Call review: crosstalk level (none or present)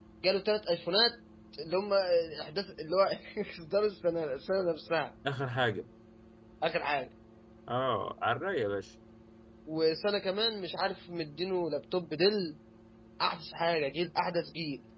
none